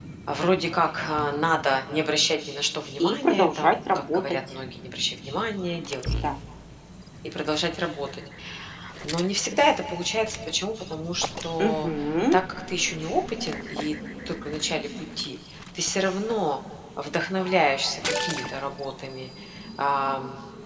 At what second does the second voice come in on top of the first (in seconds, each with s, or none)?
3.0 s